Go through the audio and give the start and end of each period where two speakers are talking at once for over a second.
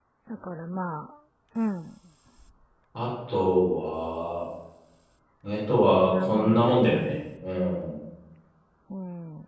5.8-7.2

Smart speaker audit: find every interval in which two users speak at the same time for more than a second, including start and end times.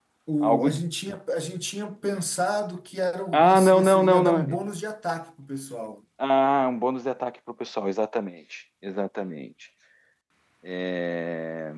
3.3-4.6

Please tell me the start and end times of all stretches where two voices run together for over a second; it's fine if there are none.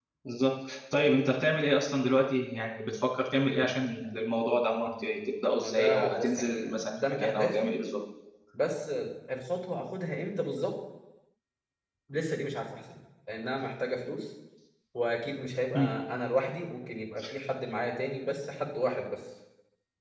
5.6-7.7

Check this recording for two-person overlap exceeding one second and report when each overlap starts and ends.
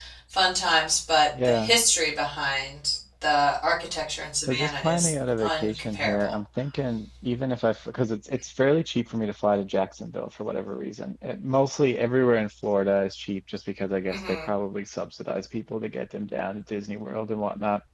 4.5-6.3

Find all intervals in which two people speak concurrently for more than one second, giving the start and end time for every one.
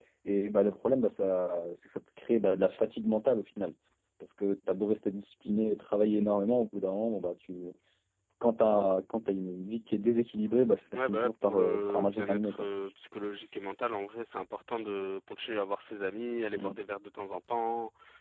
10.9-12.7

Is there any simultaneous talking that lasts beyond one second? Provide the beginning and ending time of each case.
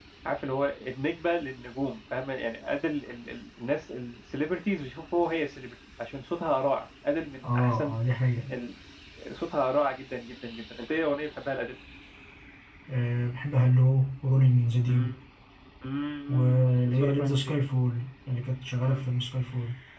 16.3-17.5

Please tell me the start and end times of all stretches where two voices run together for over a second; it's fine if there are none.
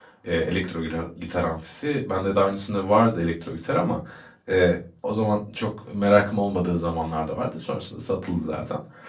none

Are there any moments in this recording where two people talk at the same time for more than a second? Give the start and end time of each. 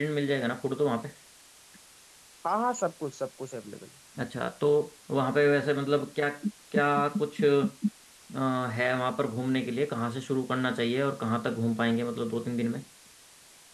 none

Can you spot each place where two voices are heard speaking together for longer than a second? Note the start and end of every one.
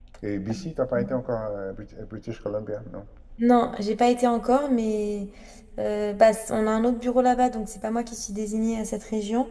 none

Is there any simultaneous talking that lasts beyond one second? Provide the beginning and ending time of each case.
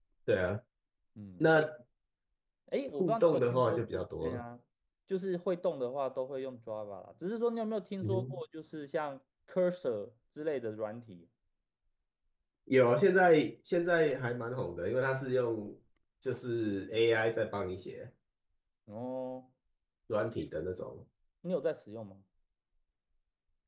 3.0-4.4

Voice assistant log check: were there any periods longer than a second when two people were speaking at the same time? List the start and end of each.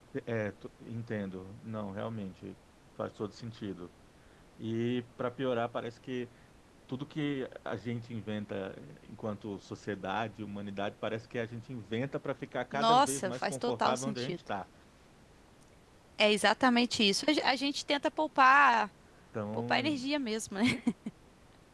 12.7-14.4

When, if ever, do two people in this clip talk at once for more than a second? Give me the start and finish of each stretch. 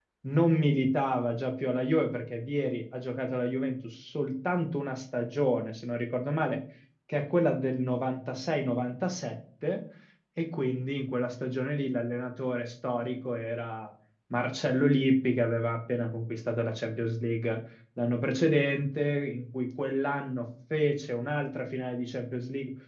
none

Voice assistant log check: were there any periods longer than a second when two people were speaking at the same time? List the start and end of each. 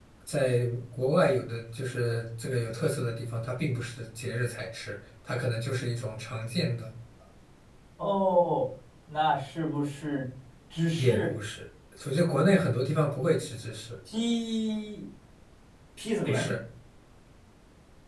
none

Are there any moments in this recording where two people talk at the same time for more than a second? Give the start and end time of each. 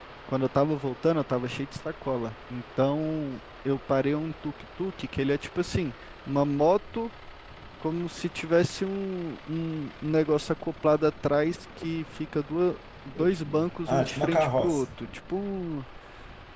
13.2-14.9

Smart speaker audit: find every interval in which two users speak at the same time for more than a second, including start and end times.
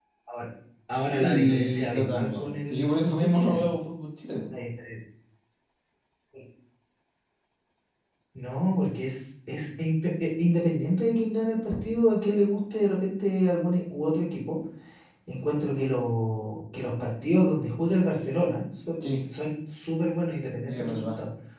1.0-3.7

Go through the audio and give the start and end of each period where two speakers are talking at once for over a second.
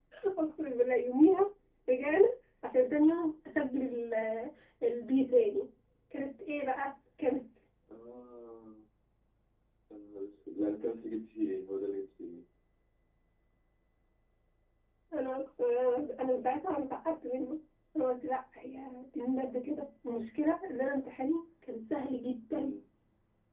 none

